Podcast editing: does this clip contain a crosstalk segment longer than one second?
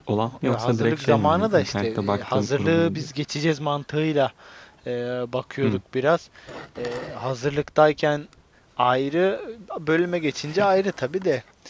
Yes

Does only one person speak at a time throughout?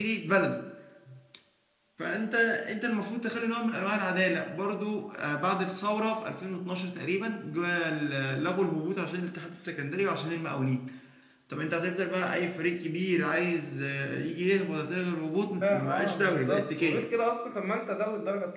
No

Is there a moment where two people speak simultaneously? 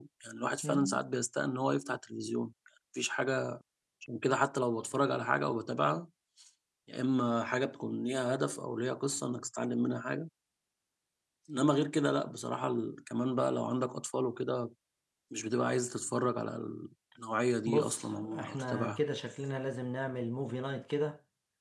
Yes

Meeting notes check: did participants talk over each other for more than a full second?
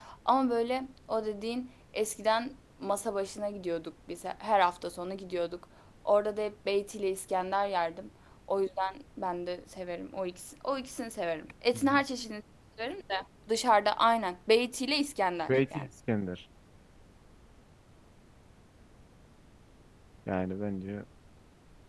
No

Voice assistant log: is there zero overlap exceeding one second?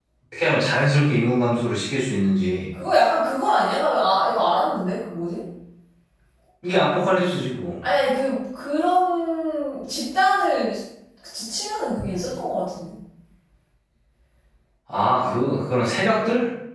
Yes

